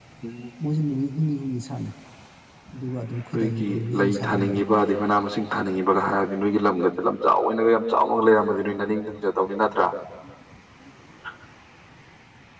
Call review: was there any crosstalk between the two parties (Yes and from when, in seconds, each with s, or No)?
Yes, from 3.4 s